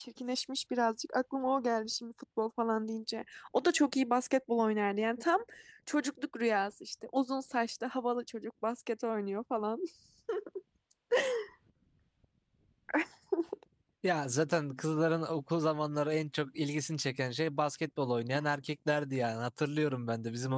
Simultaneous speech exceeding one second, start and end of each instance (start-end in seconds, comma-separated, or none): none